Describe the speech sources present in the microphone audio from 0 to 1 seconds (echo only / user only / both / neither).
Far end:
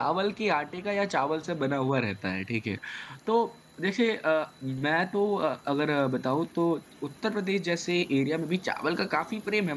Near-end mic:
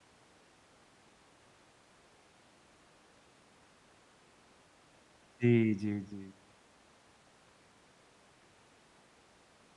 neither